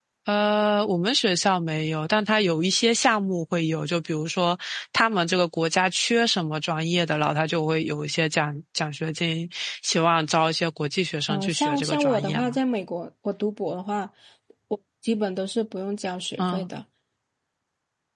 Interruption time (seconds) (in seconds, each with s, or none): 11.3 s